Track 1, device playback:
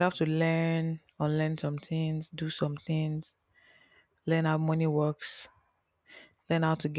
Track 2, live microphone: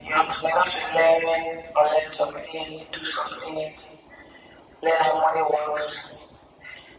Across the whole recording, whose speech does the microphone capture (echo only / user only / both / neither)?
echo only